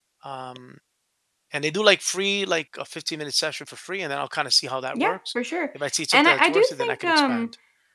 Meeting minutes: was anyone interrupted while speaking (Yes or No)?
Yes